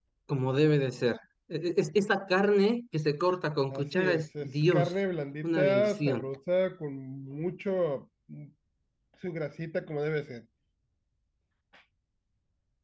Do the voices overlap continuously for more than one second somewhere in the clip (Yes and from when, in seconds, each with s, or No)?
Yes, from 3.7 s